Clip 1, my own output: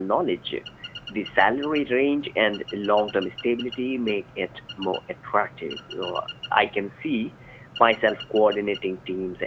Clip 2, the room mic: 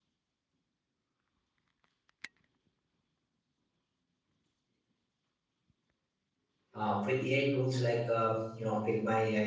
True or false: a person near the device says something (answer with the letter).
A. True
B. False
A